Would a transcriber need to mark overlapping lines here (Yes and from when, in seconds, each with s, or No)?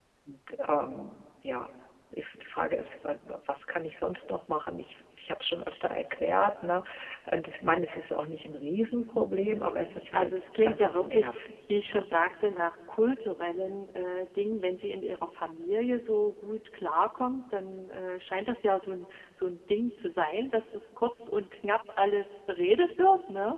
Yes, from 9.5 s